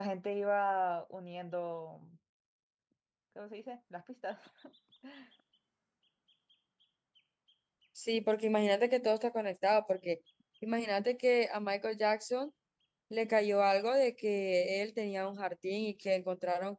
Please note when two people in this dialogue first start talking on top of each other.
none

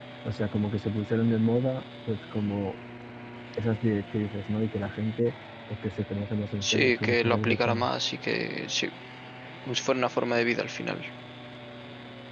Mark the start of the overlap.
6.6 s

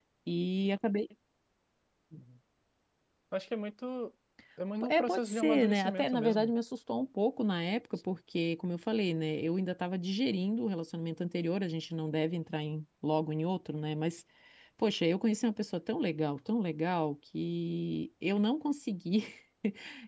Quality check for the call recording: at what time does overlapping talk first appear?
4.9 s

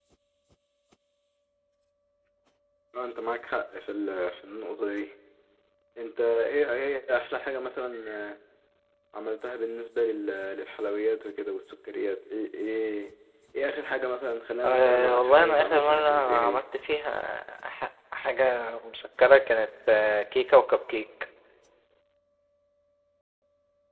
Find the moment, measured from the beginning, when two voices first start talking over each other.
14.6 s

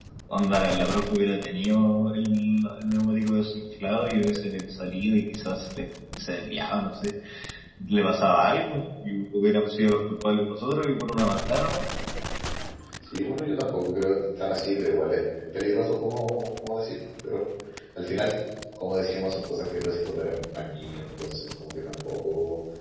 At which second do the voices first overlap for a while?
none

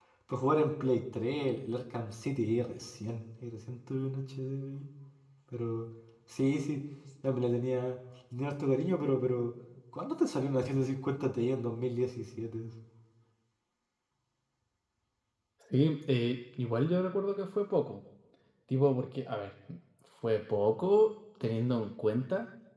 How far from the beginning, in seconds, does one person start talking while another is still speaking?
none

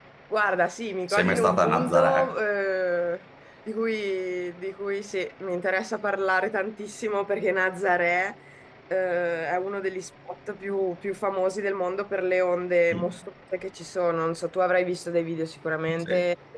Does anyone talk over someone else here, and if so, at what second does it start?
1.1 s

